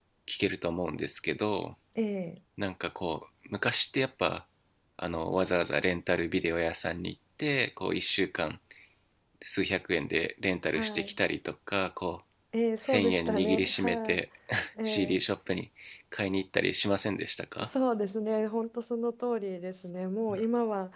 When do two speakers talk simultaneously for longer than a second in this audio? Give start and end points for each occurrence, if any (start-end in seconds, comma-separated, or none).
12.8-14.2